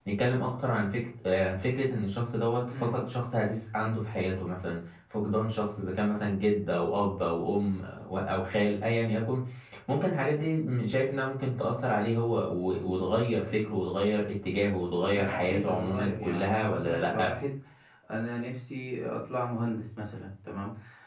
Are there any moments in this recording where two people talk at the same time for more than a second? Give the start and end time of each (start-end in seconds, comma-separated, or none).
15.1-17.3